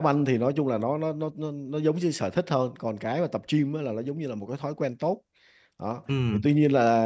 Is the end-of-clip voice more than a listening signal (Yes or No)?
No